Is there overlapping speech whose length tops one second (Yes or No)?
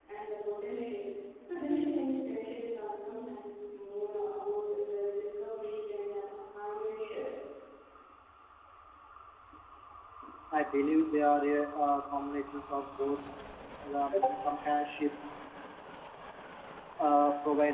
No